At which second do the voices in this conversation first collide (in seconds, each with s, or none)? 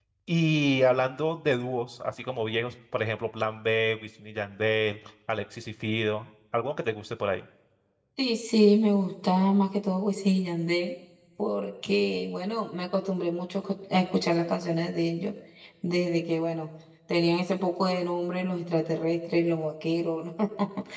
none